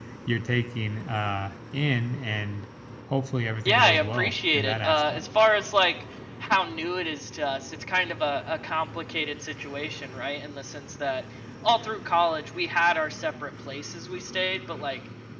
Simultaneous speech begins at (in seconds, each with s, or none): 3.6 s